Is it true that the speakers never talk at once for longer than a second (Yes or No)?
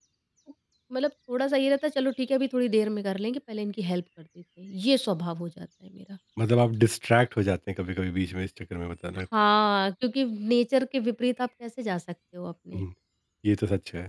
Yes